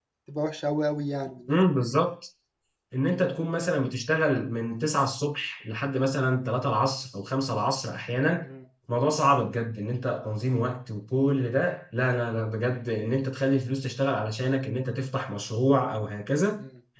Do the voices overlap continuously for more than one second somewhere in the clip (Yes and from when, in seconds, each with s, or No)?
No